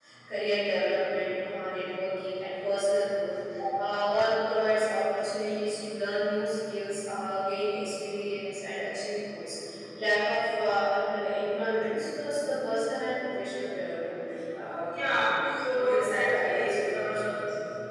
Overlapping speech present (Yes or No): Yes